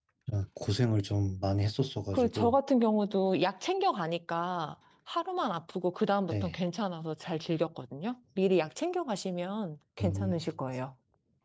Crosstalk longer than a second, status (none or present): none